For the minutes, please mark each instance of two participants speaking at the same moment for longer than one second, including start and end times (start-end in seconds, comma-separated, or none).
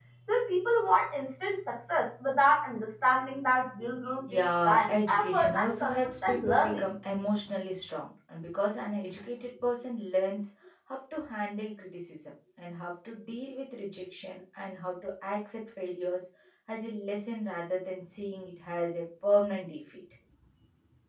4.3-6.8